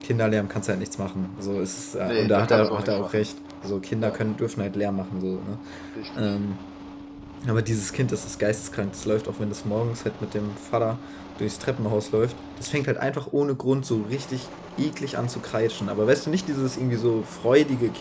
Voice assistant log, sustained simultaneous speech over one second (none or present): present